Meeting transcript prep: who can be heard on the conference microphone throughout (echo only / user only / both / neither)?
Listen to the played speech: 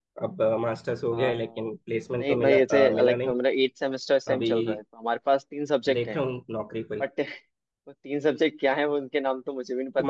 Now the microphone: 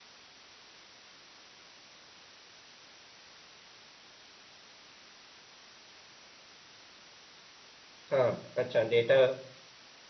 user only